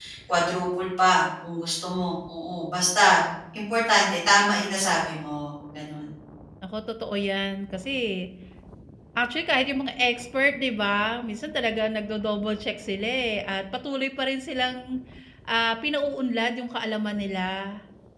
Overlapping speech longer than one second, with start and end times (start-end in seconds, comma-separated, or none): none